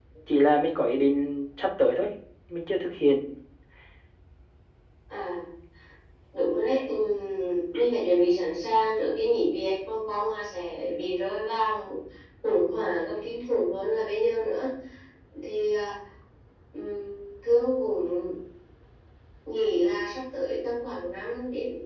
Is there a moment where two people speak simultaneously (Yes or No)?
No